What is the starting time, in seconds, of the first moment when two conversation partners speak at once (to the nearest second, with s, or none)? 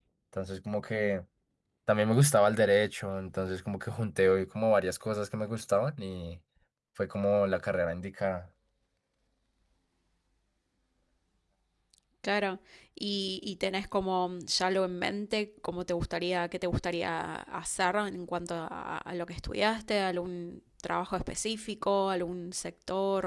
none